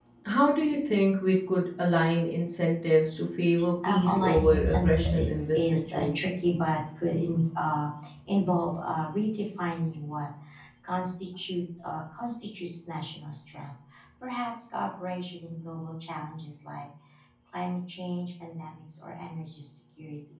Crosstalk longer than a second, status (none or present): present